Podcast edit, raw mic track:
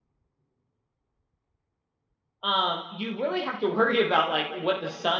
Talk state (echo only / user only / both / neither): user only